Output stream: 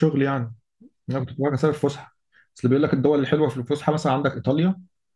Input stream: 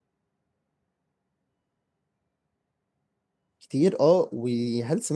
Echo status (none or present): none